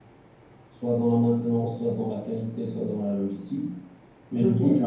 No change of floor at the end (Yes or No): Yes